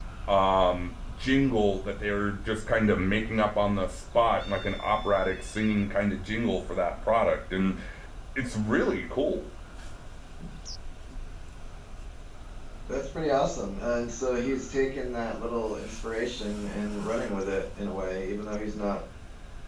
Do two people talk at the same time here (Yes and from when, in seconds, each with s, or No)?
No